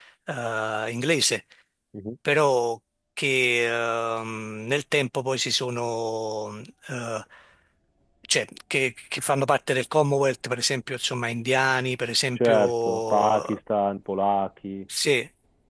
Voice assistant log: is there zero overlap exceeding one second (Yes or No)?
No